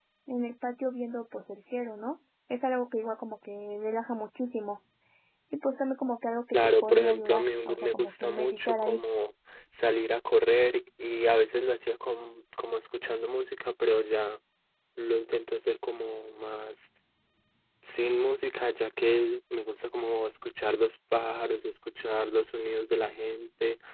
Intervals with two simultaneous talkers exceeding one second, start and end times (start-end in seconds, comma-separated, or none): 6.5-9.0